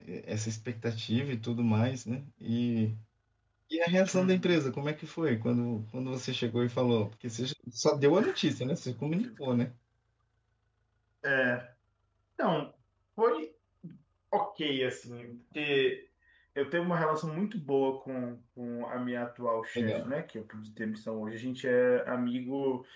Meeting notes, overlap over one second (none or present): none